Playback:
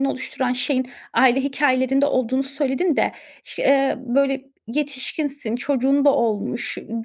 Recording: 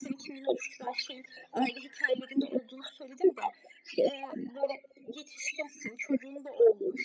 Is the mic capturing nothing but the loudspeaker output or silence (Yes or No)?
Yes